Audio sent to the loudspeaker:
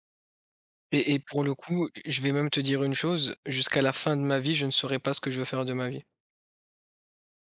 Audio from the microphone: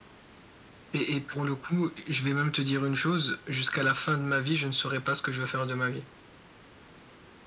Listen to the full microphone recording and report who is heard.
echo only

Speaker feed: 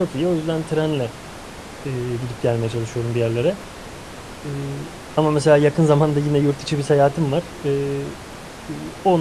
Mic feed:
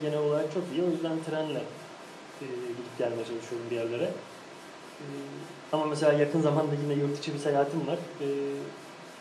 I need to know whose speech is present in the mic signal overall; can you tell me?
echo only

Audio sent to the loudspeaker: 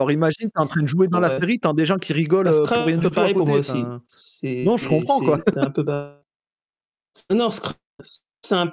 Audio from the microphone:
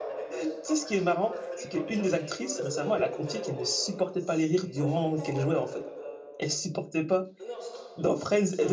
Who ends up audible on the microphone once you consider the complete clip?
both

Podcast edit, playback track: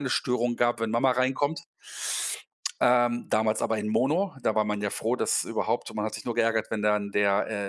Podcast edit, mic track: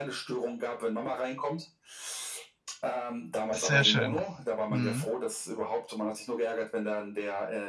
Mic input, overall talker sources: both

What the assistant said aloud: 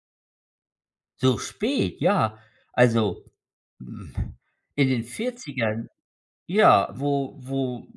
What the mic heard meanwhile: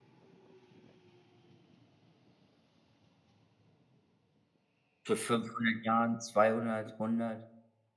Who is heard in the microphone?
user only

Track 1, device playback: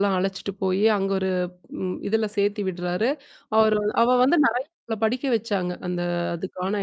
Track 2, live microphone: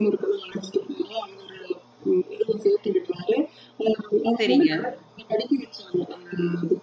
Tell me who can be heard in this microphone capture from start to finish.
both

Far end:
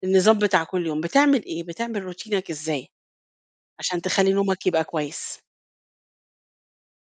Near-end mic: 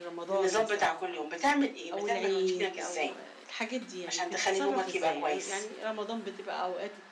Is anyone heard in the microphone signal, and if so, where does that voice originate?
both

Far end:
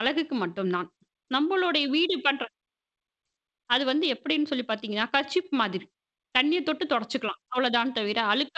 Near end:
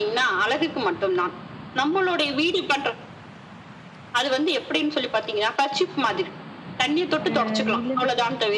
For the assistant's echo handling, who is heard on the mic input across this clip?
both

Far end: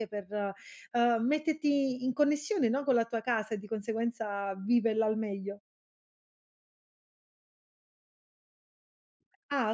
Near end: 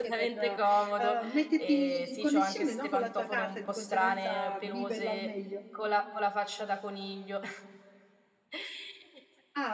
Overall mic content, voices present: both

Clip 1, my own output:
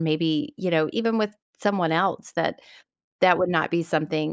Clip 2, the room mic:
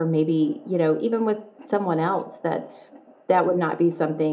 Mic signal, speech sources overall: echo only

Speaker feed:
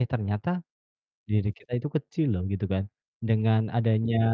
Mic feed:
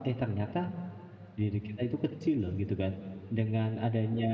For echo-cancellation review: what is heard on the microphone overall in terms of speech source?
echo only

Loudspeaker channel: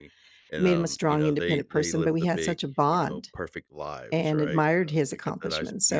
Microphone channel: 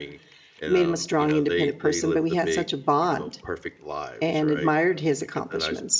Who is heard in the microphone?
echo only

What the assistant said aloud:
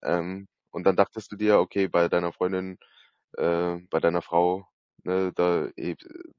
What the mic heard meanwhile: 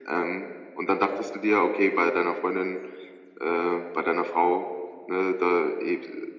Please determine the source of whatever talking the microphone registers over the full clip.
echo only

